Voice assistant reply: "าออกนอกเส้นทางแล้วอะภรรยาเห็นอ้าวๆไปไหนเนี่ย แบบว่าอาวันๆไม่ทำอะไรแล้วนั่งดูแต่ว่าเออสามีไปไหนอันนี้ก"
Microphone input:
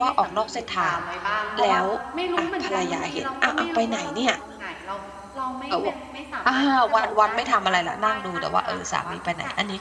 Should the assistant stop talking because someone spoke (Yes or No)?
Yes